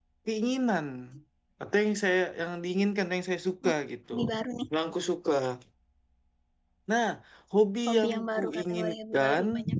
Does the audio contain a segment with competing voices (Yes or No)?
Yes